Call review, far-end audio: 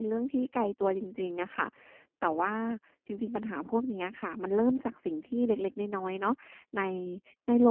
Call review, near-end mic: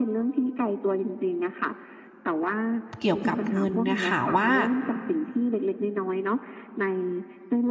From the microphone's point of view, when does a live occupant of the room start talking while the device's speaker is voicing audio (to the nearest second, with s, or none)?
3 s